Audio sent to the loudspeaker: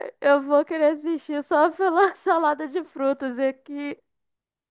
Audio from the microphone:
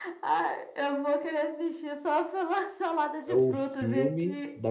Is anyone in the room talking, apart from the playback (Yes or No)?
Yes